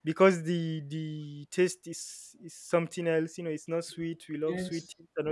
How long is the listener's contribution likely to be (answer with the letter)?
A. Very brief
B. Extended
A